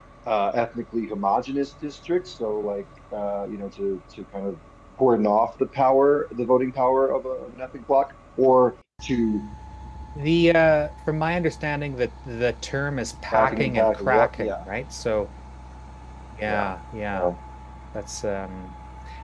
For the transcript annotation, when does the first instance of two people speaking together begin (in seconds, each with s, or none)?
13.3 s